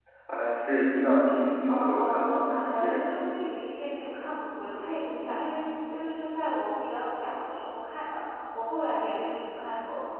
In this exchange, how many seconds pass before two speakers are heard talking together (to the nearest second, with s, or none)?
2 s